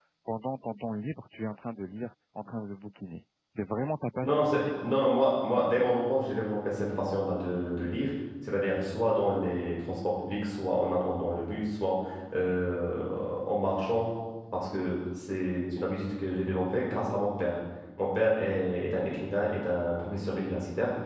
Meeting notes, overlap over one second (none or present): none